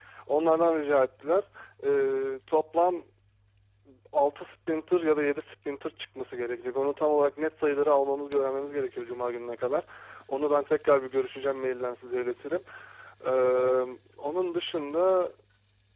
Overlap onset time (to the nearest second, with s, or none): none